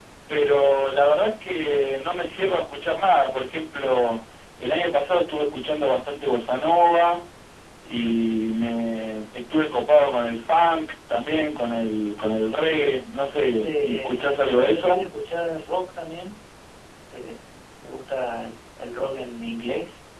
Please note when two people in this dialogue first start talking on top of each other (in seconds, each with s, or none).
13.6 s